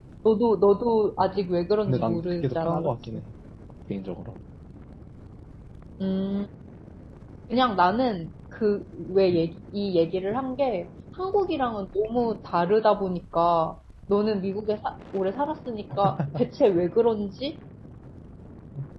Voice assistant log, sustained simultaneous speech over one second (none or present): present